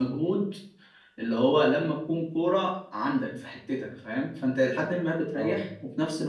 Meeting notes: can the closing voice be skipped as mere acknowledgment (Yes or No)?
Yes